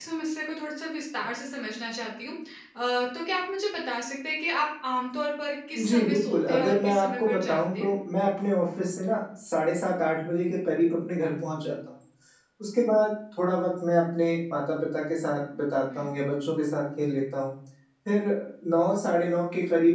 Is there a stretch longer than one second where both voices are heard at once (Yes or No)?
Yes